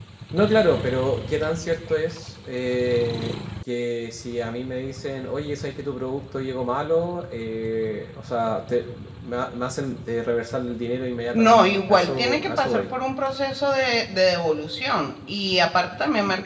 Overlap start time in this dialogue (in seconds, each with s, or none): 11.3 s